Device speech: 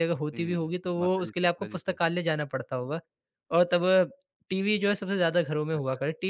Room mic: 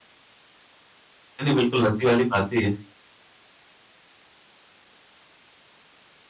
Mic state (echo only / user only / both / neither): user only